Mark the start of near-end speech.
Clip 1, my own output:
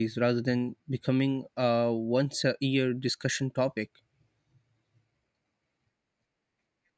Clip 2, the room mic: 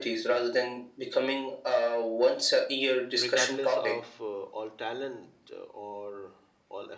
3 s

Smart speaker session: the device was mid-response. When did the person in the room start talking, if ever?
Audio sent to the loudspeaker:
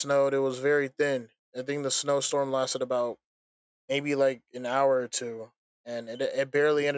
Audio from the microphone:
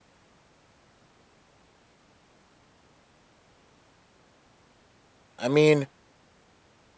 5 s

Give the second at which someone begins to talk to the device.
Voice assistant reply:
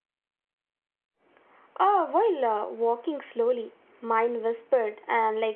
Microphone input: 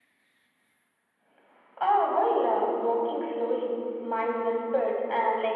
none

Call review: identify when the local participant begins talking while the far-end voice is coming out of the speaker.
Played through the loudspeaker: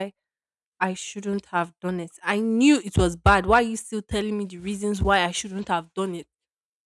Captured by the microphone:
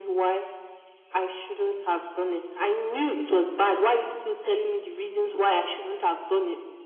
none

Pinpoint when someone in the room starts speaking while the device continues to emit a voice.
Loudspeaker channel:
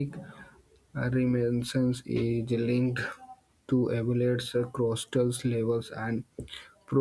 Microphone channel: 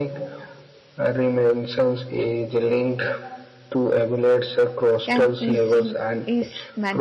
5 s

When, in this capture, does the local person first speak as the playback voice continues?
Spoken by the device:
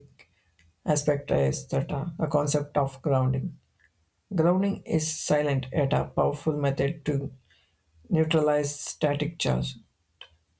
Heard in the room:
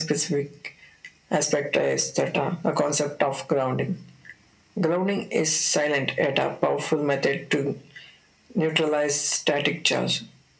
none

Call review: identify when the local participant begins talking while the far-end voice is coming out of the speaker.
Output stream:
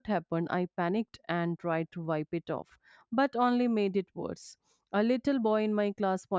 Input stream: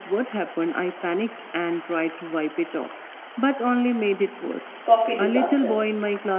5 s

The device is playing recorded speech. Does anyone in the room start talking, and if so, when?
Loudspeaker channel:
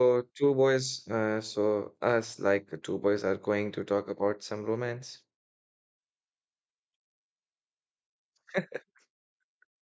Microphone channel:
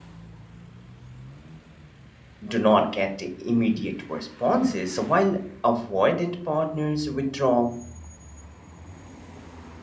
2 s

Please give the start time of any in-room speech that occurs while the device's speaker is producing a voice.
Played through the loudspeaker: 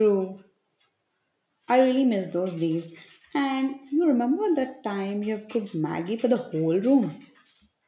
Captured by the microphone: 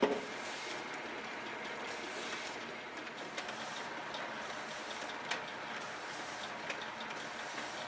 none

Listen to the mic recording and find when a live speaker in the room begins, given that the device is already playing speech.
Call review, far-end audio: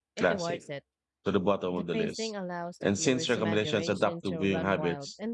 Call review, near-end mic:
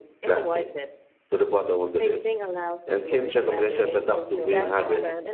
4 s

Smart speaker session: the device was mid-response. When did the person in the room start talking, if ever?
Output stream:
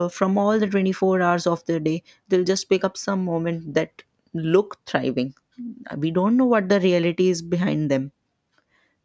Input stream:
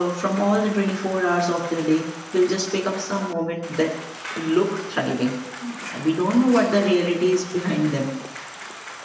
none

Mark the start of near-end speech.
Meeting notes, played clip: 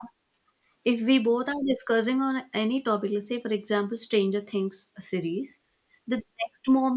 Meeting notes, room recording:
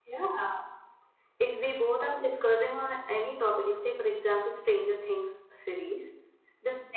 none

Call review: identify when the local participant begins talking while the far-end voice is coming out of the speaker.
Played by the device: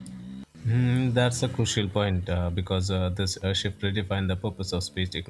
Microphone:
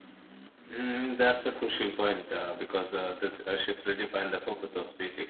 none

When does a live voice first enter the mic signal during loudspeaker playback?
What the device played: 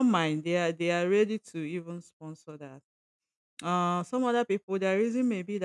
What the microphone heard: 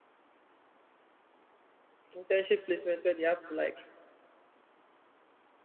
2 s

